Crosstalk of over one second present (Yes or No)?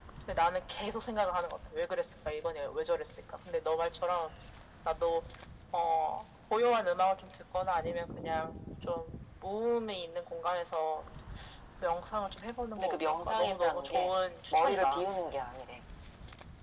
Yes